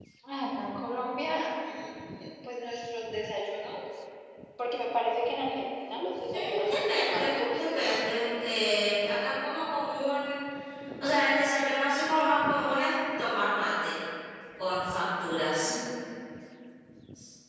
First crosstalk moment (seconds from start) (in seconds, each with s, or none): 6.3 s